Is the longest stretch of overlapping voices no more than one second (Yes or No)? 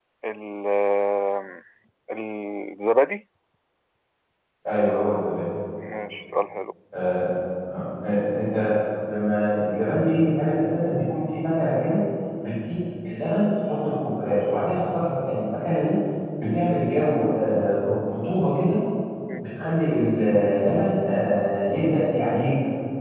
Yes